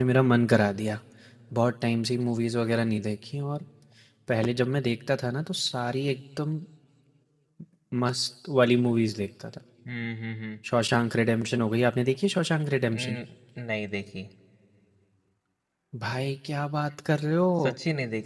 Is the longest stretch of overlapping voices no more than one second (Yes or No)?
Yes